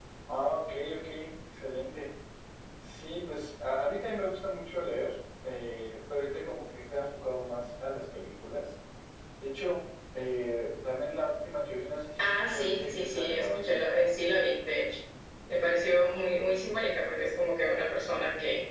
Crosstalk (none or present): present